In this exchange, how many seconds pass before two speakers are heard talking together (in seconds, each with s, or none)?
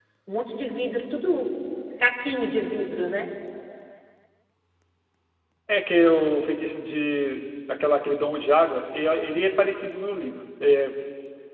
none